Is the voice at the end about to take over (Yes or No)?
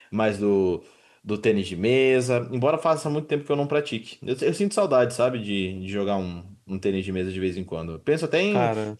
No